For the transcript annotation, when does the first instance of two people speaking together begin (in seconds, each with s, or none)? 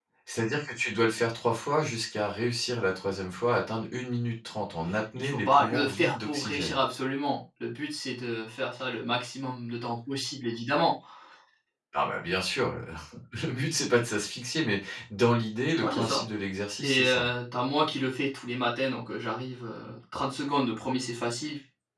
5.2 s